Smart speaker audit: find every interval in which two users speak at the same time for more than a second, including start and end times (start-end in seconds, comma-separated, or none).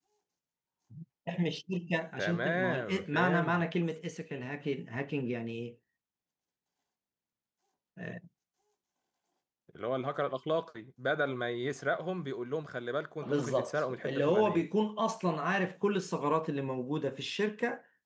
2.2-3.7, 13.2-14.7